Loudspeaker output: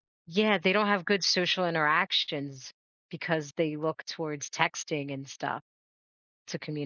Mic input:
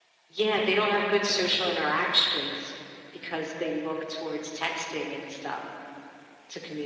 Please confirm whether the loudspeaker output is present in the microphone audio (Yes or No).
Yes